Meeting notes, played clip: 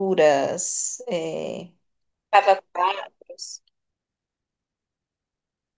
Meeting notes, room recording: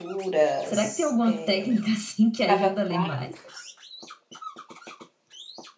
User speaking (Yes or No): Yes